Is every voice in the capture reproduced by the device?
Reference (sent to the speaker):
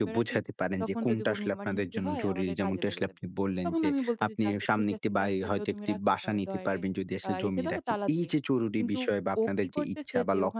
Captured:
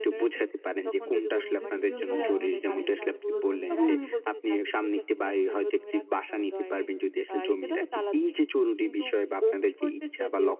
No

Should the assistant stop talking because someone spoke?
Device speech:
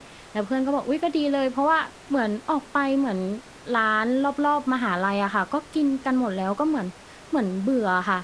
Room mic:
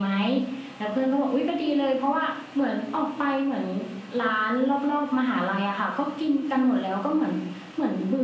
No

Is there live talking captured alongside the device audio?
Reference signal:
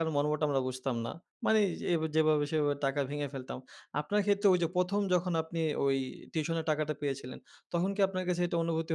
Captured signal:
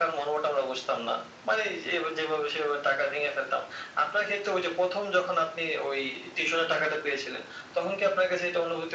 No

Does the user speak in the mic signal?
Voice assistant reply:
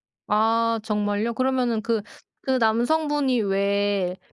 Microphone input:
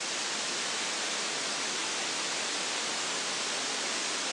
No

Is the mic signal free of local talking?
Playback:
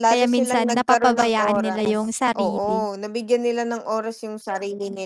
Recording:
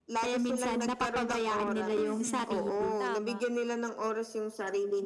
No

